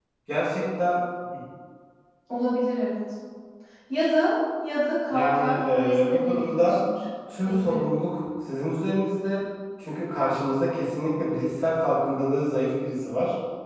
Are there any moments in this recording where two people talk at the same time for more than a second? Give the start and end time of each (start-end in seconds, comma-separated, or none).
5.1-6.8